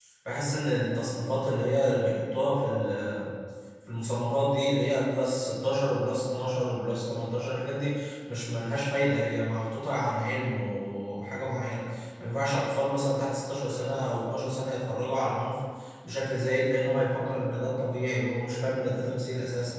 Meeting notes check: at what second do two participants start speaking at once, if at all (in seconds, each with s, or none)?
none